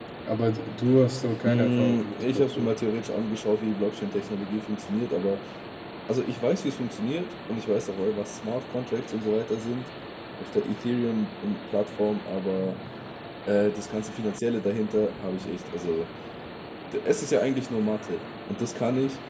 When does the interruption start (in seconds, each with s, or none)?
1.4 s